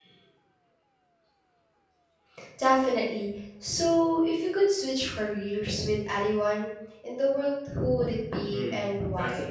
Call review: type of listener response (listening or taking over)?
taking over